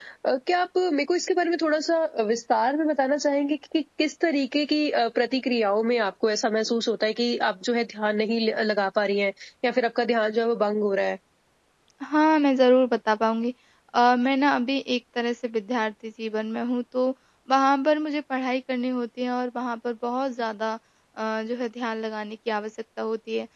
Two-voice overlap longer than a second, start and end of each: none

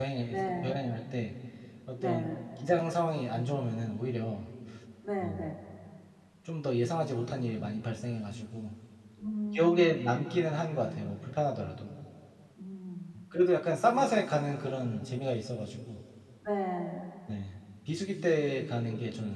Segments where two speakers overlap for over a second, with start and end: none

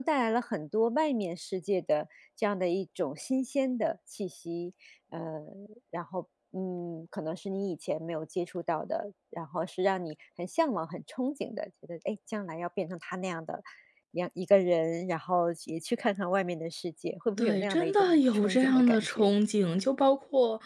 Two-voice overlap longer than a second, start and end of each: 17.4-19.3

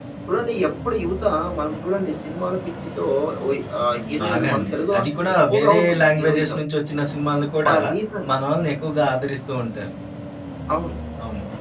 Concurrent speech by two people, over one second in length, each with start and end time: 4.2-6.6

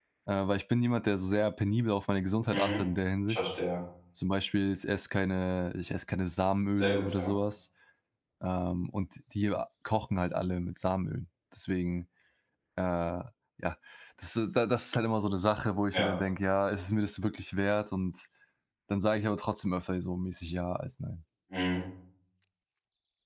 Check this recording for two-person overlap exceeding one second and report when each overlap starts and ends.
none

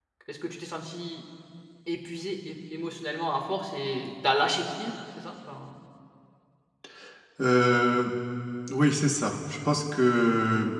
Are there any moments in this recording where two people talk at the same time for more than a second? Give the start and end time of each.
none

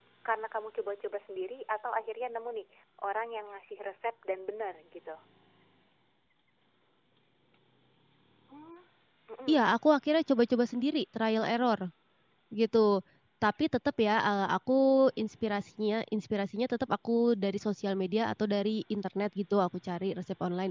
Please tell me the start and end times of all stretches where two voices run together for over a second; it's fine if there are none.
none

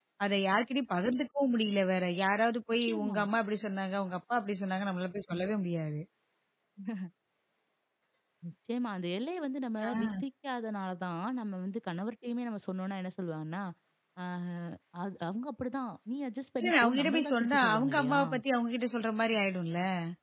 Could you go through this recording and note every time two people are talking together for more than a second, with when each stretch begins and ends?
16.6-18.2

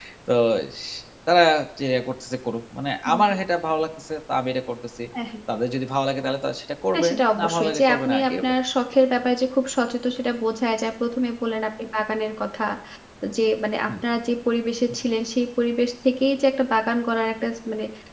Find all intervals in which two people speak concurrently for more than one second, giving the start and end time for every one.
6.9-8.5

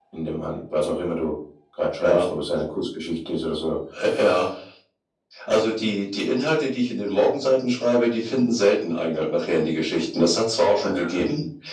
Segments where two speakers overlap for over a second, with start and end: none

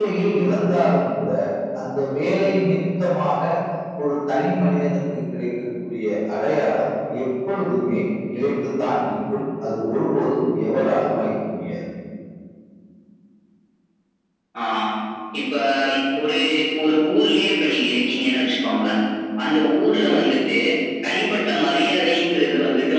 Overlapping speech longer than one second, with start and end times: none

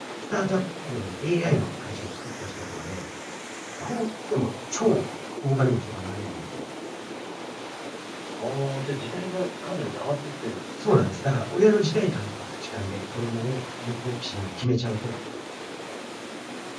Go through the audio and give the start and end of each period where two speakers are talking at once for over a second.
none

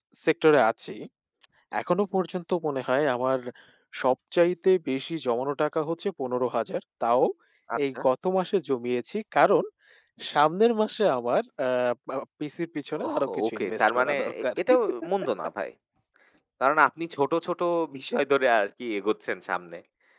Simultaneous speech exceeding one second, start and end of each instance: 13.1-14.4

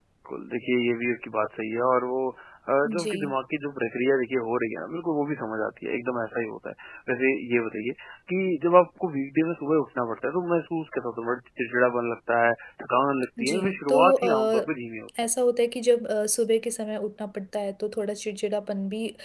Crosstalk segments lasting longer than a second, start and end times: 13.4-14.7

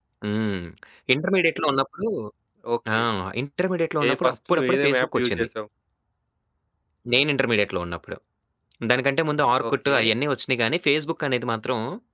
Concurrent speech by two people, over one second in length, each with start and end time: 4.1-5.5

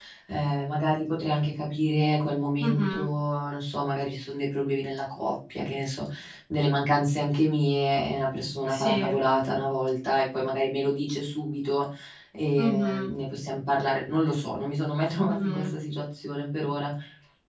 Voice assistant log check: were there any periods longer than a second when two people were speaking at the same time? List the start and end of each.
none

